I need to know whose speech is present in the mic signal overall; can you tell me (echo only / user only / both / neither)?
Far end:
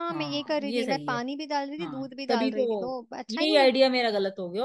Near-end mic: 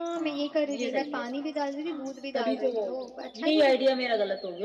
echo only